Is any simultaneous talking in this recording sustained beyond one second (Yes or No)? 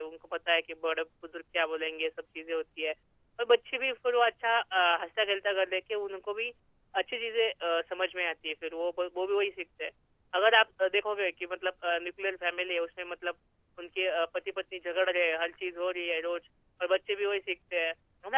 No